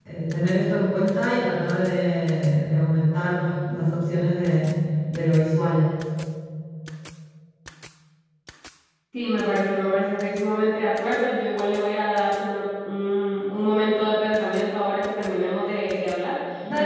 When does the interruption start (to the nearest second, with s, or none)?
none